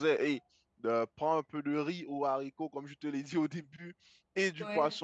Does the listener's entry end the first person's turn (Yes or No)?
No